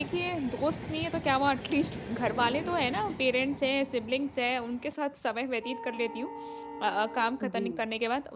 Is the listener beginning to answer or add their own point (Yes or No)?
No